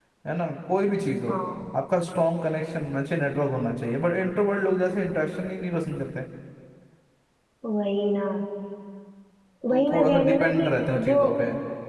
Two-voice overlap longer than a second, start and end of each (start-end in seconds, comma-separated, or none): 9.7-11.2